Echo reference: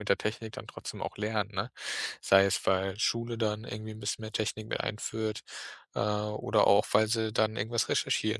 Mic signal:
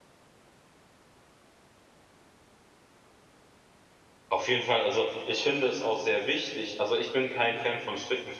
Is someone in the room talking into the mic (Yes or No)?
Yes